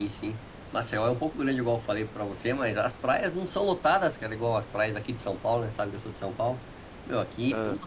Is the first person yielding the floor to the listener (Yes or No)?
No